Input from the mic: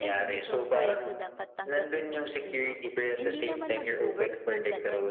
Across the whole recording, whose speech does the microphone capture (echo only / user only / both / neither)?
both